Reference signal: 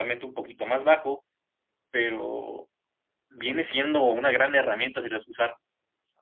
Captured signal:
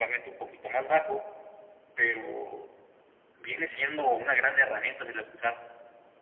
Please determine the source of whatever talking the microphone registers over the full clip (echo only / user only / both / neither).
echo only